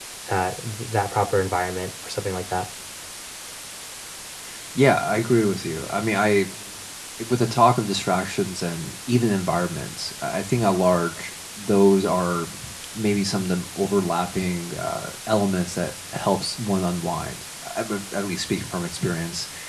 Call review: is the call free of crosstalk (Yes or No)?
Yes